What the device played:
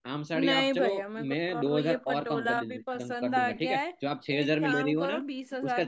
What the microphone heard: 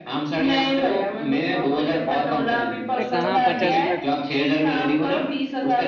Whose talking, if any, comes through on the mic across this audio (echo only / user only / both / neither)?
both